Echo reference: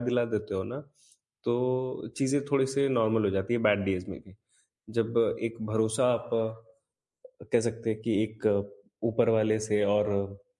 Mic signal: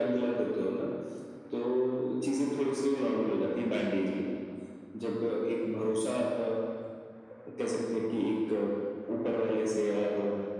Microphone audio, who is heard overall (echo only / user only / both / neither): echo only